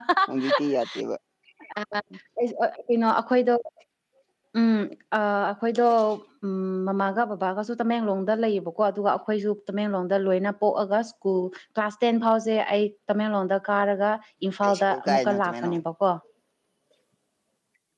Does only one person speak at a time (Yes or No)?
No